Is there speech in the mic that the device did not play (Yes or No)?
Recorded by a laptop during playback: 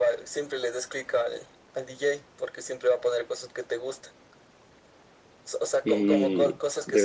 Yes